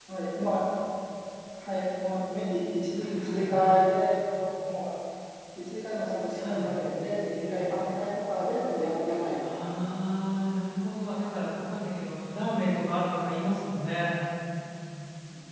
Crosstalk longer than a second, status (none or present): none